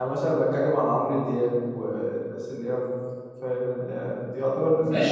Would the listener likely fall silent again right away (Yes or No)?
No